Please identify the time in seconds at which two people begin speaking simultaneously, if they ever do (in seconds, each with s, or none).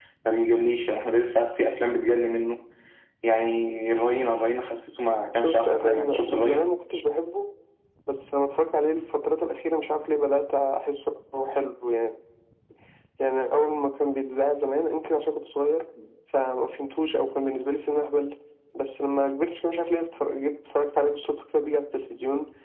5.3 s